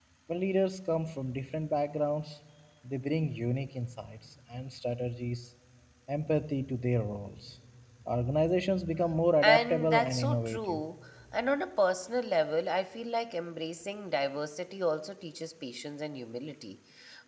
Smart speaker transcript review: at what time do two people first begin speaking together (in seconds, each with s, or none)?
9.4 s